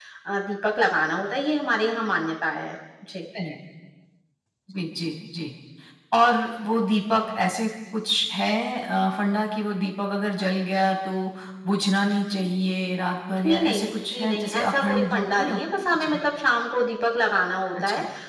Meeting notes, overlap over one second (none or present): present